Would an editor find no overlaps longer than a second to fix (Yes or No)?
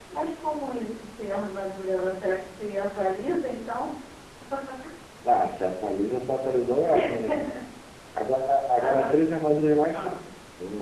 Yes